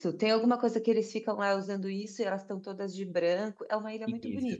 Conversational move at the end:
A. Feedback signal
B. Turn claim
B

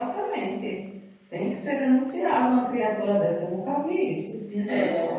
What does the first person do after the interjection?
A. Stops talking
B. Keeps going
A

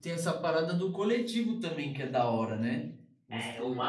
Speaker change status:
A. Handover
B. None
A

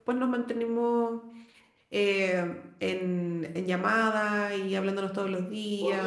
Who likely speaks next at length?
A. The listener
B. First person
A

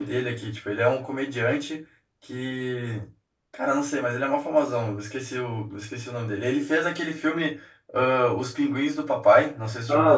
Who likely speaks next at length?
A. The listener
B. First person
A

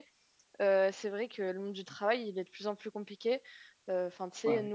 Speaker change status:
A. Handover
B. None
B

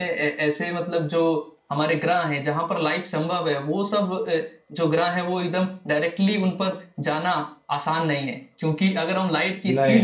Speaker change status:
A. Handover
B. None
B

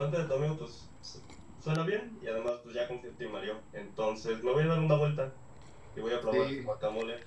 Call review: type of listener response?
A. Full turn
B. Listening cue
B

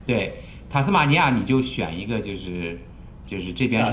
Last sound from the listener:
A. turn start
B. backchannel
B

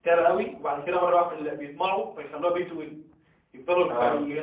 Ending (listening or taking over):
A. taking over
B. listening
B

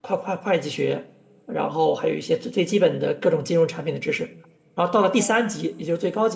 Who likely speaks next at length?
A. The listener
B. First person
B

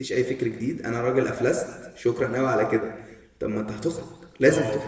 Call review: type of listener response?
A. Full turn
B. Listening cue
B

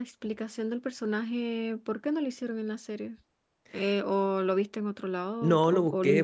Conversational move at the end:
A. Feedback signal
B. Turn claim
B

